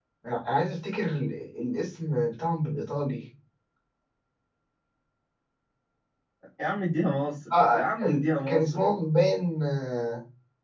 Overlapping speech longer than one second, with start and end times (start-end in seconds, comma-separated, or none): 7.5-8.8